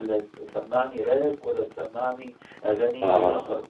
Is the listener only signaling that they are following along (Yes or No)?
Yes